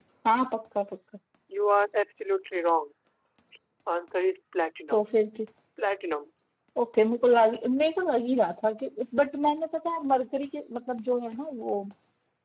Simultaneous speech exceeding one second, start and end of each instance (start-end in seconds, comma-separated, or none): none